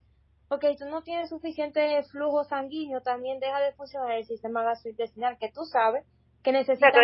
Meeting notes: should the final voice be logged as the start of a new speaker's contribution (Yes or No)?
Yes